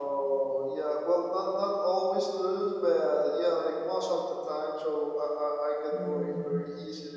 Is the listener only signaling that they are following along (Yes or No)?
Yes